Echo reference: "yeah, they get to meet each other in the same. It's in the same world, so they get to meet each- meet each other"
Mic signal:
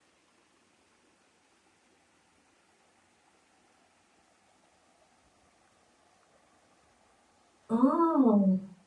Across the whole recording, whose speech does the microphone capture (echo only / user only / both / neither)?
user only